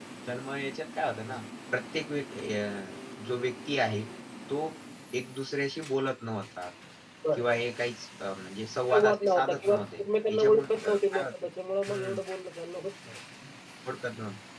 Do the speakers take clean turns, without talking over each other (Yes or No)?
No